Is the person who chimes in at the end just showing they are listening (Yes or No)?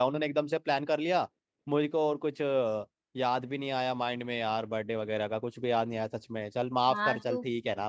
No